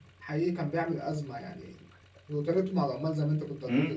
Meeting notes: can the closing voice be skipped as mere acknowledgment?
No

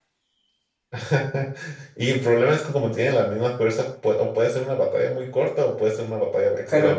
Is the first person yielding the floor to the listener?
Yes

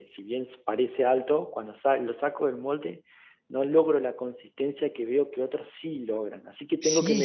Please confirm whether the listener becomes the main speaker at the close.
Yes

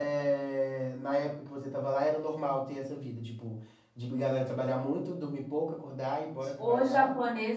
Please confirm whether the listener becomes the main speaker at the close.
Yes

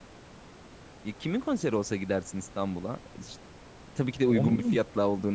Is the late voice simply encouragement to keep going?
Yes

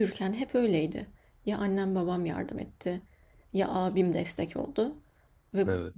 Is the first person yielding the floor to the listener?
No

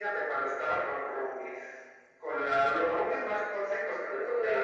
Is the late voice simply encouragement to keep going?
Yes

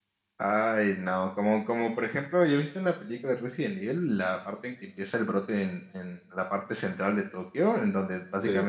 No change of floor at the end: Yes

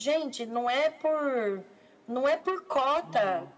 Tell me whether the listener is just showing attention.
Yes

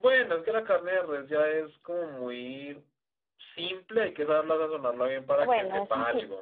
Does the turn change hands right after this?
Yes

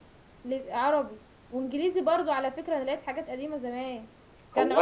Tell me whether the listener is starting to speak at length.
No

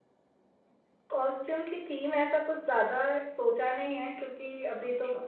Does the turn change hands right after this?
No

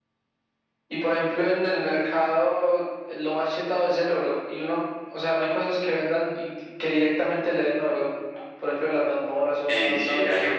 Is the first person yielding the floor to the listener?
Yes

